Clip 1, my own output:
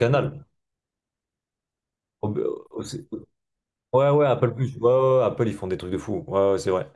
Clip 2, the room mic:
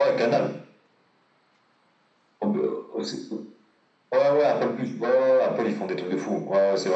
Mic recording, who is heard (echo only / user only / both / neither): echo only